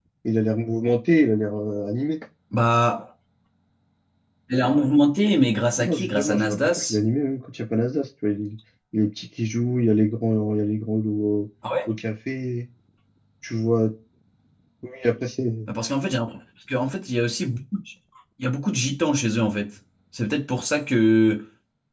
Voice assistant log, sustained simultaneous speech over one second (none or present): present